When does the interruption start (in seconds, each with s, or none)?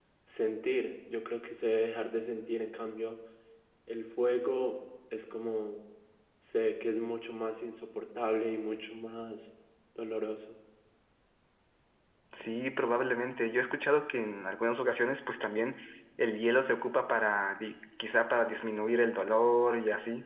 none